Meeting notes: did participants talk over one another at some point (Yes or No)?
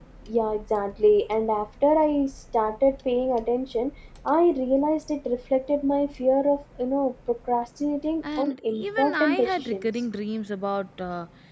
Yes